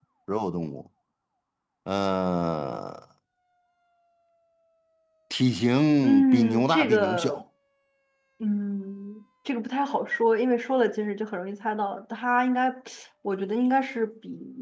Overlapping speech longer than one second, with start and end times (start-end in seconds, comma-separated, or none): 6.0-7.4